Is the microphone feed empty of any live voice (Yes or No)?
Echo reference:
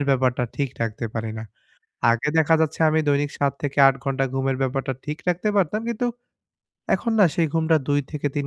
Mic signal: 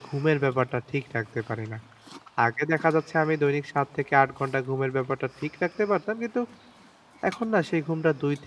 Yes